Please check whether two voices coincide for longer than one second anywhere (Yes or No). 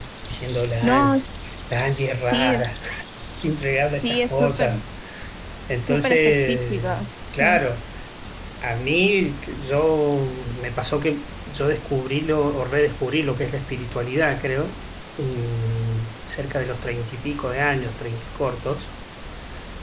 Yes